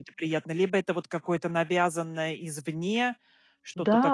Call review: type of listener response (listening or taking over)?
taking over